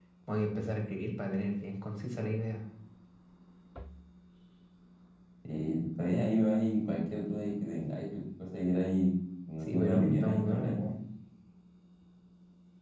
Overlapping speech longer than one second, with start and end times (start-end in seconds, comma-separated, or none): 9.7-10.9